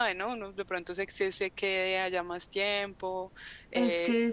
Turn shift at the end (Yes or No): Yes